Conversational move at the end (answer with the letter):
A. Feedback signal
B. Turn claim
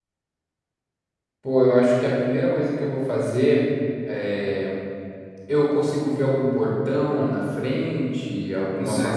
B